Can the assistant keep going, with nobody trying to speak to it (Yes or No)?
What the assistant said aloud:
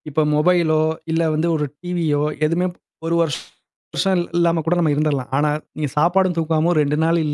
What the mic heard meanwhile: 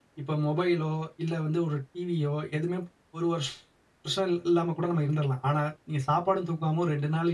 Yes